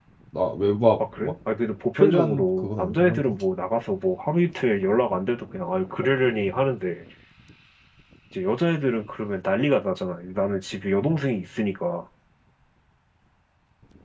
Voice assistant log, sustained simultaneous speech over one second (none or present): present